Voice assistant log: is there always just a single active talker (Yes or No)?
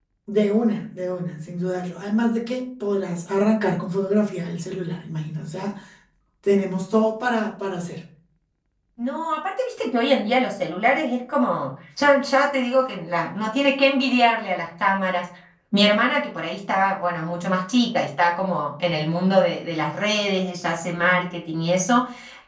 Yes